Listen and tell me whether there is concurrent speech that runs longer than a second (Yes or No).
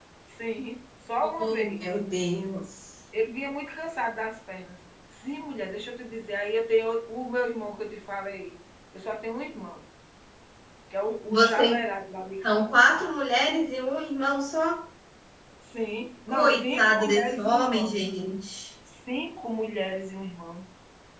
Yes